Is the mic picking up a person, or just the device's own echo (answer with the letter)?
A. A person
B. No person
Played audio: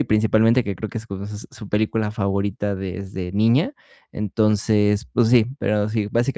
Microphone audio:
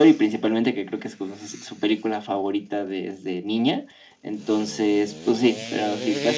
B